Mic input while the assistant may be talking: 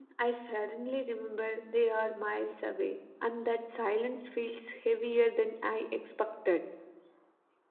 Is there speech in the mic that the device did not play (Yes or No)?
Yes